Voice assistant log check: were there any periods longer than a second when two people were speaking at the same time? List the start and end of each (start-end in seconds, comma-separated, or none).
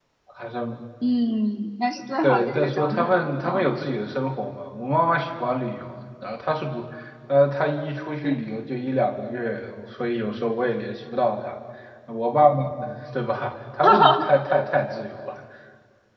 2.2-3.7